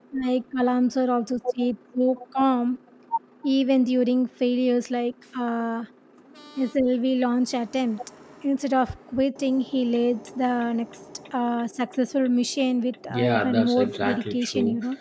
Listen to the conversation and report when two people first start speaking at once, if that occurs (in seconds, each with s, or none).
13.1 s